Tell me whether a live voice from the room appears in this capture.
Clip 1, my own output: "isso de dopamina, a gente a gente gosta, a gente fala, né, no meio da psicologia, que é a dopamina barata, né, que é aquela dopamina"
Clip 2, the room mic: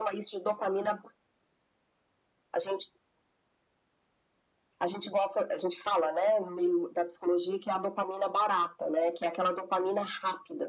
No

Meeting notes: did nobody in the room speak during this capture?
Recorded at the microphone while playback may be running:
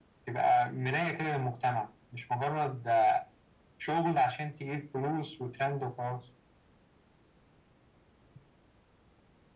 Yes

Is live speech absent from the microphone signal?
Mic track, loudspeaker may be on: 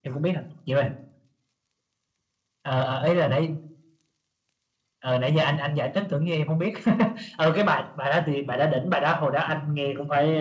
Yes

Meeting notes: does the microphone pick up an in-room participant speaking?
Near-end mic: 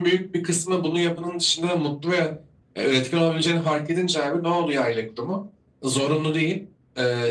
No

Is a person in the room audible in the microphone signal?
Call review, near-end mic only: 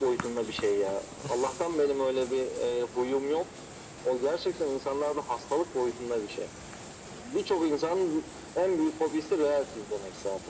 No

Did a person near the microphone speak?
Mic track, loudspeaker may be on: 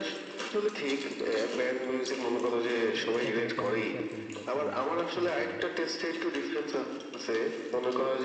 Yes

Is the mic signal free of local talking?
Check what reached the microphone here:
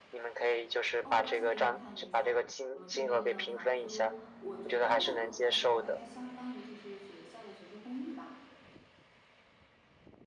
No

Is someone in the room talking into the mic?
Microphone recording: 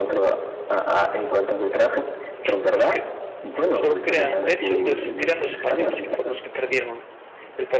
Yes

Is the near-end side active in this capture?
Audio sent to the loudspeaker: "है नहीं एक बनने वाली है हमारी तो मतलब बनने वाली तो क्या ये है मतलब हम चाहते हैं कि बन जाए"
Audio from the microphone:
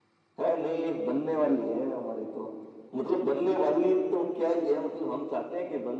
No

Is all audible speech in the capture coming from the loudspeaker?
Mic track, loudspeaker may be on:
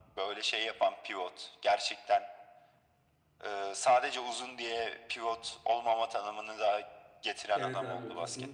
No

